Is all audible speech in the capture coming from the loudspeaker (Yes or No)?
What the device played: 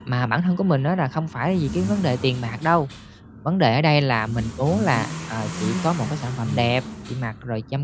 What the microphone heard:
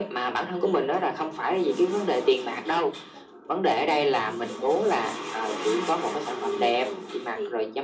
No